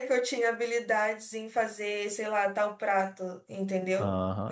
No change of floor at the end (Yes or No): No